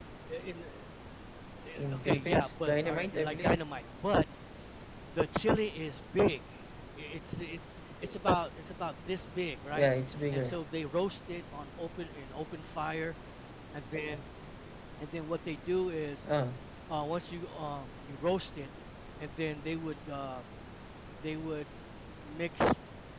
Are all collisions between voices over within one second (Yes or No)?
No